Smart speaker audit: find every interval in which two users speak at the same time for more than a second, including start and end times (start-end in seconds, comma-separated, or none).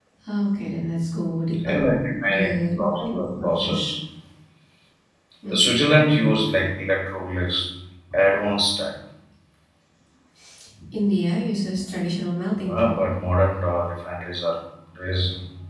2.2-3.9